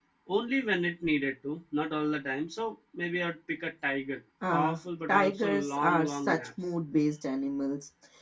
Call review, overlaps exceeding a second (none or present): present